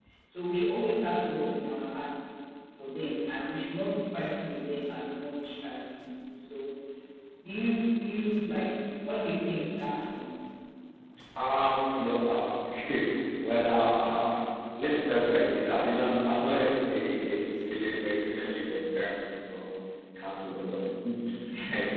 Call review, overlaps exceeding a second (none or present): none